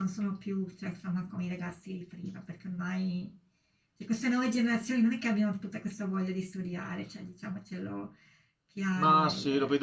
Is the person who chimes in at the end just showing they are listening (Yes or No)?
No